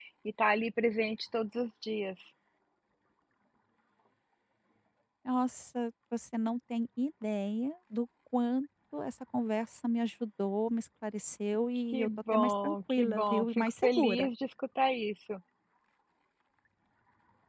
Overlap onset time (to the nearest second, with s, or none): 12 s